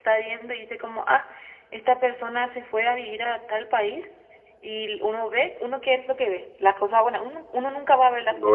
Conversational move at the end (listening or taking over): taking over